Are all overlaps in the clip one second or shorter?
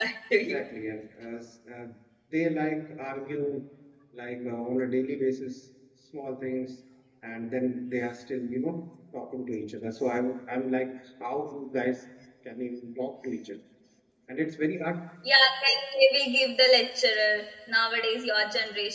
Yes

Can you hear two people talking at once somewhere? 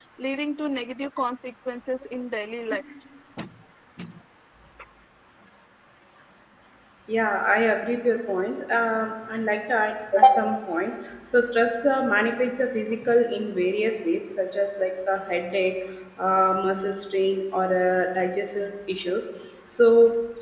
No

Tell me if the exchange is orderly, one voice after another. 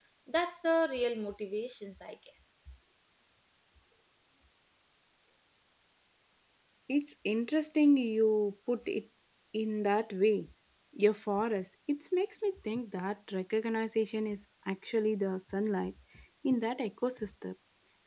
Yes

